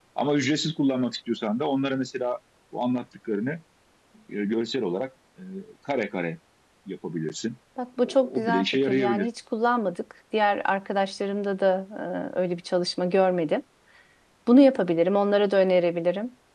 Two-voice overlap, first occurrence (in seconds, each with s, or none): 8.0 s